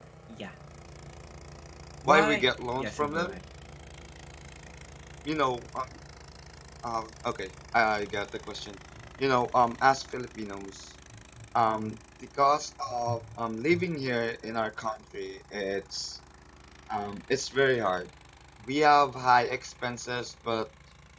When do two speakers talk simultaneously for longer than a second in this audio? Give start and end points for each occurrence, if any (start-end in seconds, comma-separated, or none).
2.1-3.4